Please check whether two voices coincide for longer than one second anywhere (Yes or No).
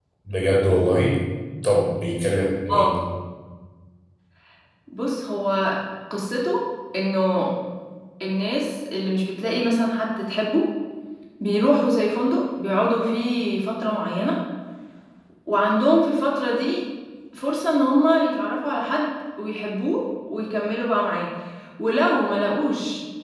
No